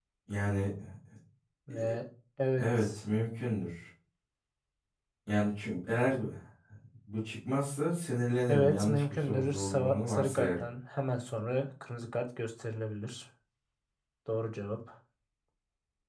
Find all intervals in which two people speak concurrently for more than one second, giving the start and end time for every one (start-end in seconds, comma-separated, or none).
8.5-10.6